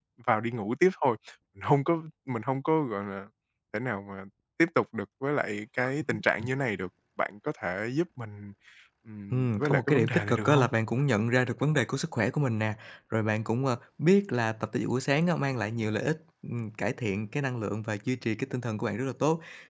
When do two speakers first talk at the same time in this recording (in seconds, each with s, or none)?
9.3 s